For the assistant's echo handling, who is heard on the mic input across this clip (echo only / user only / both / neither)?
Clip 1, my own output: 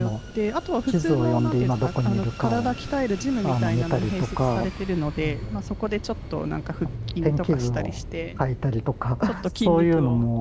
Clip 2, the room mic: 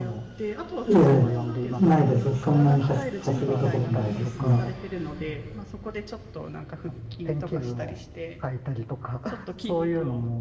both